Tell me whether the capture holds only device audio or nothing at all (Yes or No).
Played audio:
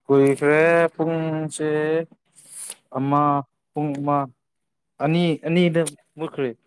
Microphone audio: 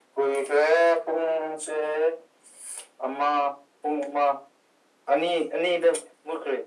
Yes